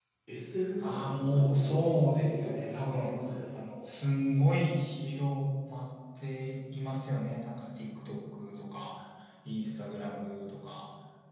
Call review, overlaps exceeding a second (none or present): present